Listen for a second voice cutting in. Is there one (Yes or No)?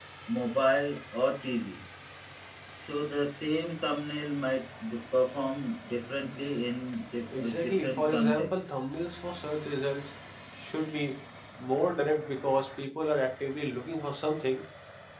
Yes